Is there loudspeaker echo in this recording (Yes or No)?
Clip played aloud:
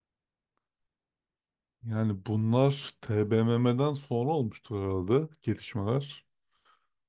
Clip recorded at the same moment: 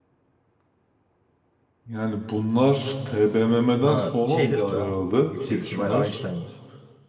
Yes